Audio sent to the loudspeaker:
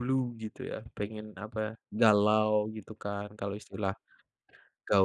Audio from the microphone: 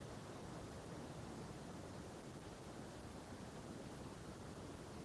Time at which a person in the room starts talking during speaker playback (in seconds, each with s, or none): none